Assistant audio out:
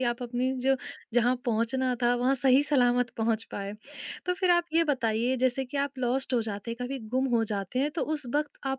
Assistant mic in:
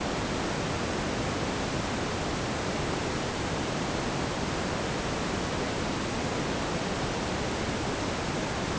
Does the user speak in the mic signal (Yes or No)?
No